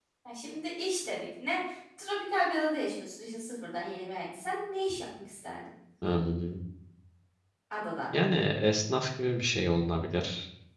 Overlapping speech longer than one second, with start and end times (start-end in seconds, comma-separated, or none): none